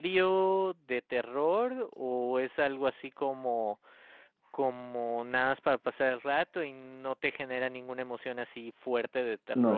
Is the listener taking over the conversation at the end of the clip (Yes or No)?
Yes